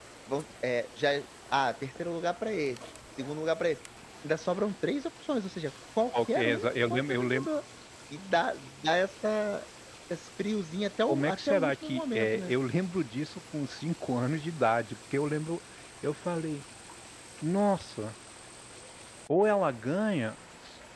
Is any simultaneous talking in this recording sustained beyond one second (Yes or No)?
Yes